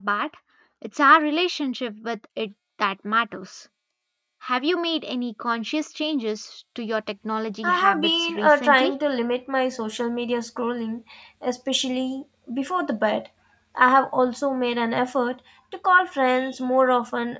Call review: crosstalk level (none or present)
present